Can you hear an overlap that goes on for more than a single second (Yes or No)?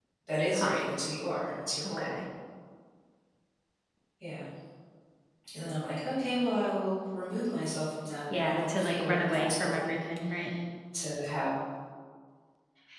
Yes